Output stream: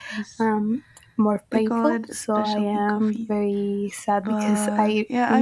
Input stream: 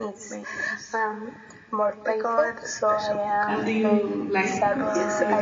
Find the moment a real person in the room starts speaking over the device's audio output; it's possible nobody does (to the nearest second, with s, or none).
3 s